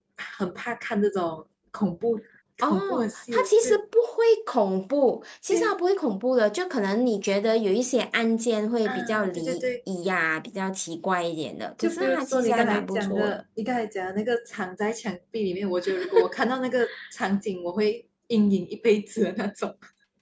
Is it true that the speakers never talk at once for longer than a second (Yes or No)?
No